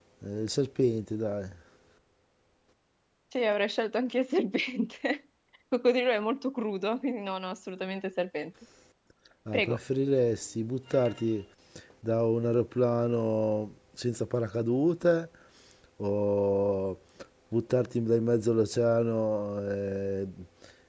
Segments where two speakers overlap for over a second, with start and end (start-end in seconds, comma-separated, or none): none